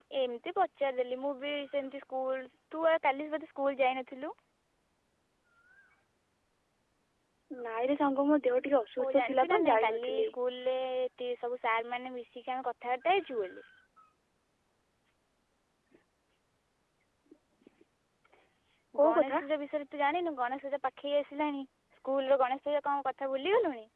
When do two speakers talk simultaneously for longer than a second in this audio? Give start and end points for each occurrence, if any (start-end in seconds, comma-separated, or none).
9.0-10.3